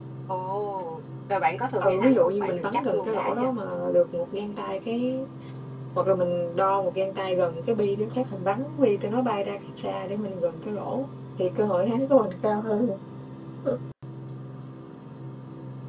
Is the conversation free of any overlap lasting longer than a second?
No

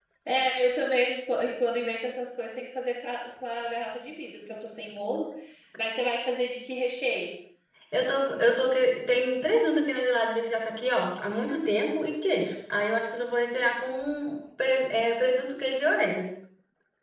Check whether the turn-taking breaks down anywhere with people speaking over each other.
No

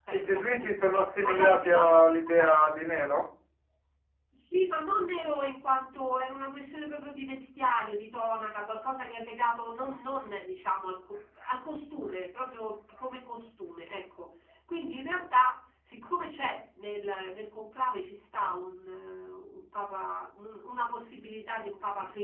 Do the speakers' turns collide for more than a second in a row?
Yes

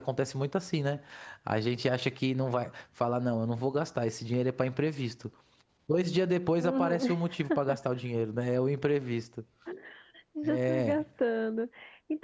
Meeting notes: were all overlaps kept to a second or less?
Yes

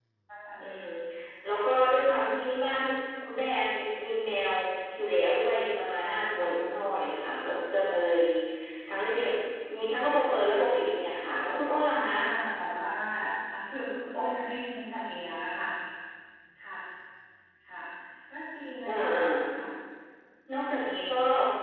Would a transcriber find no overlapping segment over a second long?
Yes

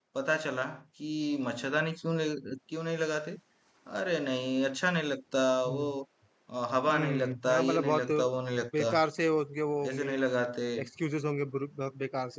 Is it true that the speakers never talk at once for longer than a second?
No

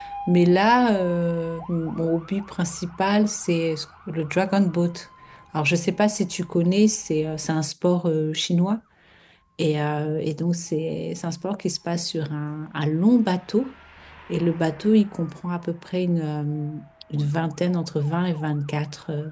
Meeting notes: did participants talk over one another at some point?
No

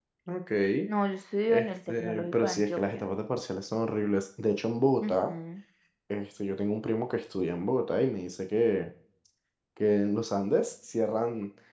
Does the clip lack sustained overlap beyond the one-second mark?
No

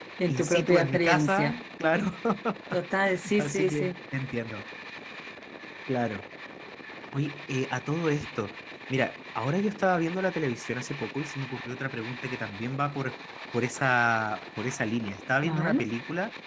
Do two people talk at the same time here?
Yes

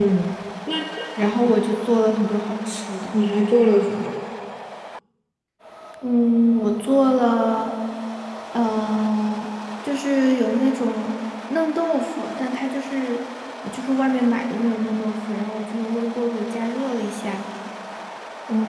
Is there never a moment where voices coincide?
Yes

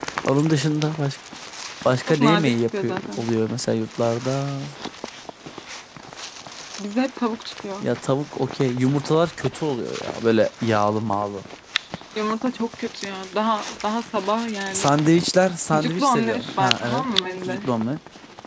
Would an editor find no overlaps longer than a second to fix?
No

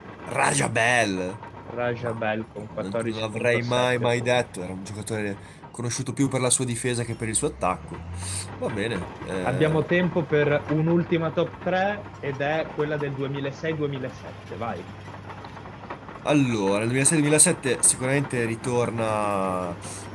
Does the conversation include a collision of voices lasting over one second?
Yes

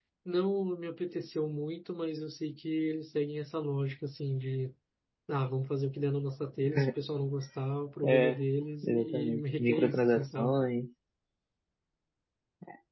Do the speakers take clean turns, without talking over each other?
No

